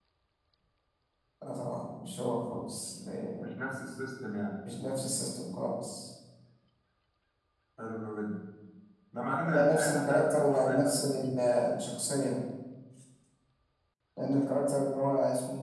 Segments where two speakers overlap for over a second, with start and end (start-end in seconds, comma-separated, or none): 9.5-11.3